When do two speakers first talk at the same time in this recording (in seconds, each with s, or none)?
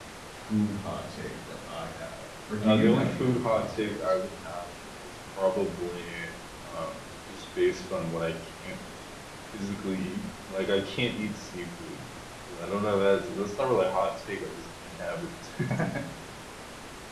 2.6 s